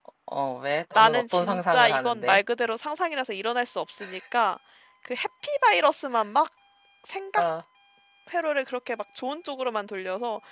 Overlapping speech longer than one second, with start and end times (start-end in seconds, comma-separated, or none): 1.0-2.4